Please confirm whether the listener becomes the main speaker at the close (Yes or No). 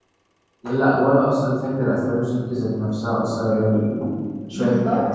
Yes